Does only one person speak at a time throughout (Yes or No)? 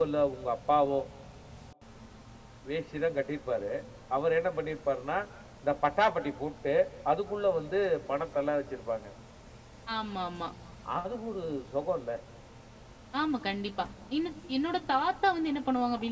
Yes